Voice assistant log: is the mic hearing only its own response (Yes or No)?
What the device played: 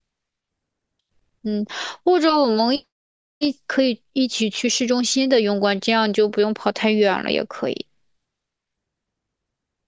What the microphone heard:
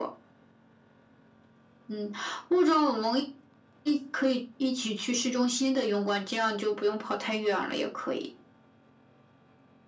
Yes